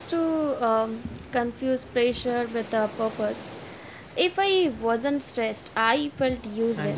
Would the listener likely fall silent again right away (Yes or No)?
No